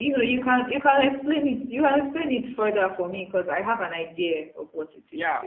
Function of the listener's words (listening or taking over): taking over